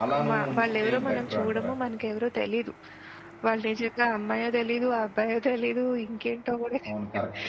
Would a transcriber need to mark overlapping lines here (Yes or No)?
Yes